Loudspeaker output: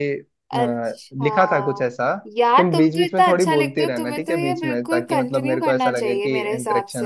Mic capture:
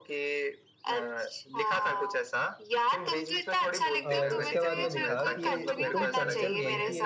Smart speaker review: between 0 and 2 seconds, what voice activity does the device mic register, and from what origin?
echo only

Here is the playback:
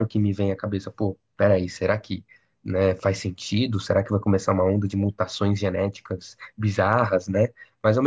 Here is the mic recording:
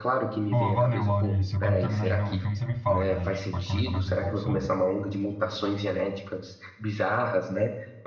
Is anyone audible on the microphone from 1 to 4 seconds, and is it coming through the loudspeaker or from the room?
both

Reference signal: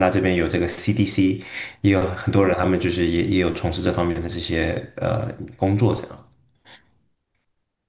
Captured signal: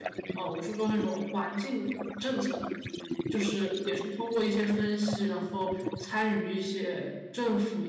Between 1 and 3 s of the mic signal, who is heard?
both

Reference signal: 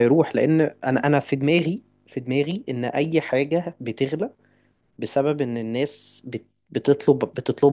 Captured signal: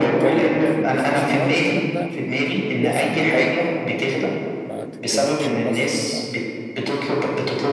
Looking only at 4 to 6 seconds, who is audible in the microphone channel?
both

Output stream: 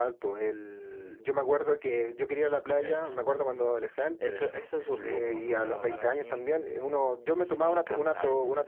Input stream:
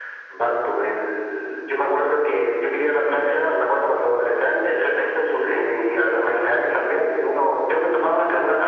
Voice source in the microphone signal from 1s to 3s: echo only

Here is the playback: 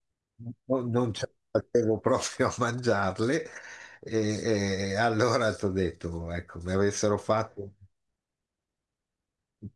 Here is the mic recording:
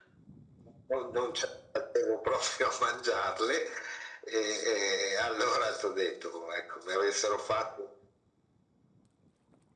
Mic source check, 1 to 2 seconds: echo only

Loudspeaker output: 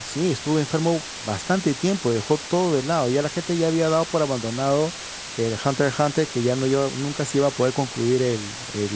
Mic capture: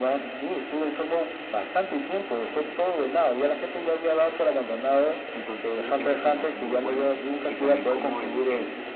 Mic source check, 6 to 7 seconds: both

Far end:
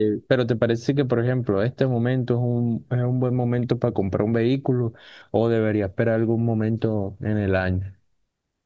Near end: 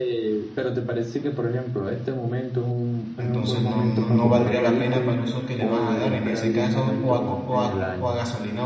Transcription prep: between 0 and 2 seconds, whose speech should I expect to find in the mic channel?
echo only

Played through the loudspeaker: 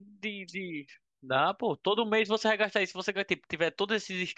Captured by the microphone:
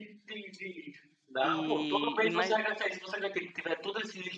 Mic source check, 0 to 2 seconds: both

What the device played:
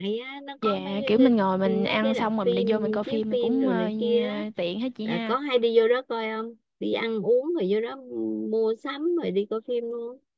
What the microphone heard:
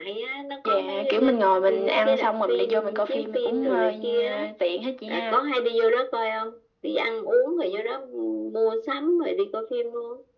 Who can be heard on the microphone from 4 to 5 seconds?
echo only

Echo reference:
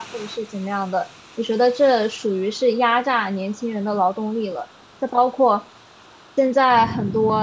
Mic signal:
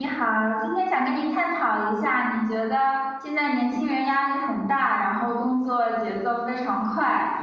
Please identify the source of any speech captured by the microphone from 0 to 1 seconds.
user only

